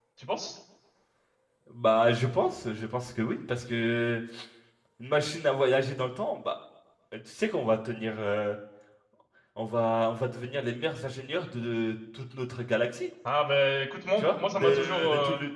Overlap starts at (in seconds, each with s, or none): 14.2 s